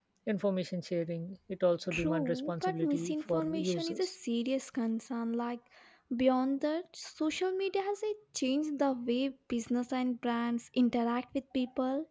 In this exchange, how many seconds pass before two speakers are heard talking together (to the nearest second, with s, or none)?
2 s